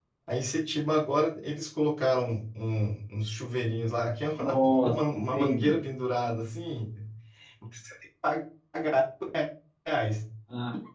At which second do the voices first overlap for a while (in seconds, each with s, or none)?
4.4 s